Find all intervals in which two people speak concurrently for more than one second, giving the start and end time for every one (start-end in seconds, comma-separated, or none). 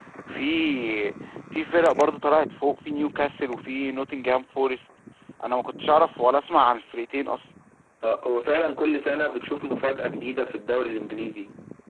none